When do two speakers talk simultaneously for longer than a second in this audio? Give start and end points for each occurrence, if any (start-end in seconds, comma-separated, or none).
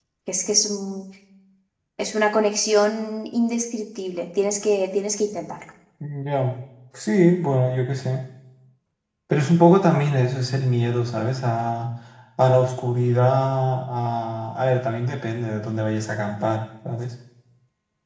none